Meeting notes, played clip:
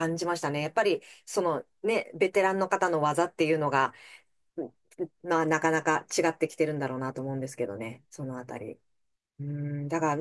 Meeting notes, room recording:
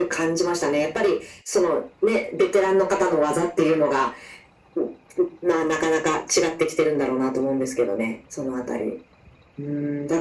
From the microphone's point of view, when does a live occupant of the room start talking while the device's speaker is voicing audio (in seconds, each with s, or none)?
none